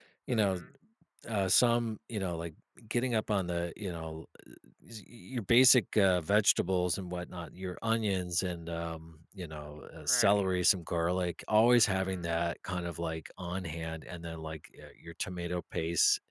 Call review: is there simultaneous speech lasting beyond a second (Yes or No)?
No